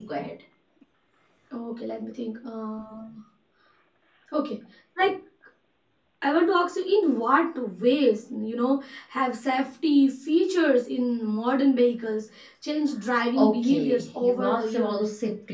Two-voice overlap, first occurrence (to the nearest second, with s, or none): 13 s